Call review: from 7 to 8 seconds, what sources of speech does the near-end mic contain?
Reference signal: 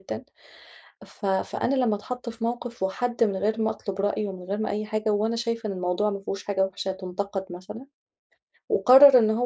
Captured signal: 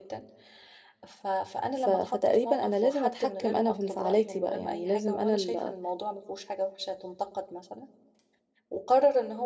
echo only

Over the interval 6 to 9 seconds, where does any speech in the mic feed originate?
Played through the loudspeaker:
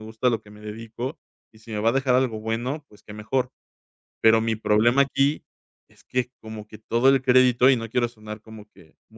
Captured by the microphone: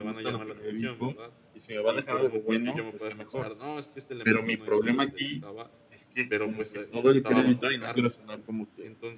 both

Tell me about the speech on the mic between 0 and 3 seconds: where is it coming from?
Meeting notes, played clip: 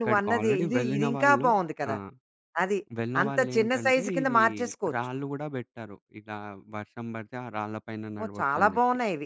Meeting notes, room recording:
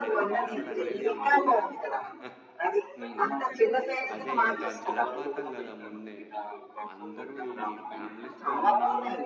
both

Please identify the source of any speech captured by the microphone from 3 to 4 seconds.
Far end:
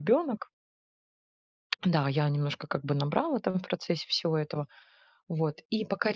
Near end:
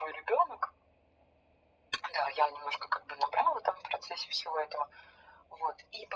echo only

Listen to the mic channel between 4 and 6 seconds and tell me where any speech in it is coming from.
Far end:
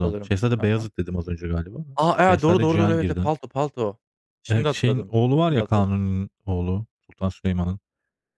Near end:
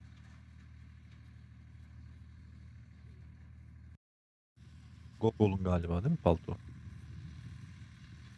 user only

